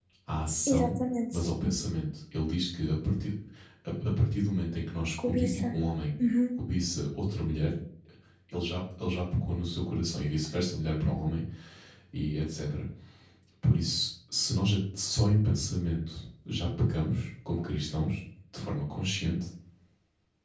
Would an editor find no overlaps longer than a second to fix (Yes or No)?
Yes